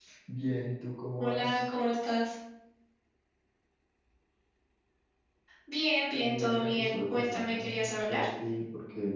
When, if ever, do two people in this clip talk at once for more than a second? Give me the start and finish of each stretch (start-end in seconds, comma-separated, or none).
6.2-8.2